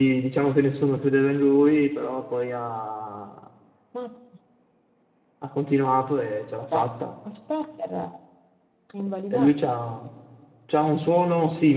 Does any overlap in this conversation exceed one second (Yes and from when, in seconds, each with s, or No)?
No